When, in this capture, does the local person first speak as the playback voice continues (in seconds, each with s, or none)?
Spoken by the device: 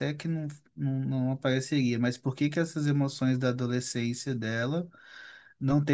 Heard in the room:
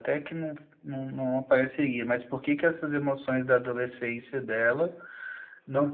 none